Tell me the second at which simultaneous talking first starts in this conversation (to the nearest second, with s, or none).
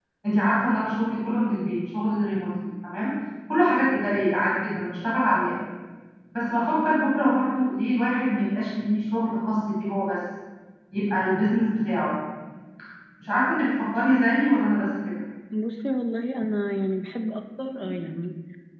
none